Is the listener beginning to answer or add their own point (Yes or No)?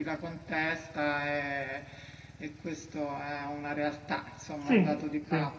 Yes